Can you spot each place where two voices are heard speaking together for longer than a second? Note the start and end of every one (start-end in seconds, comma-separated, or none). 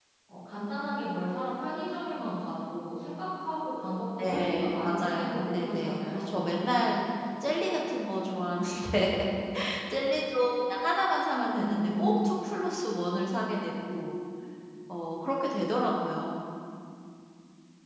4.2-6.3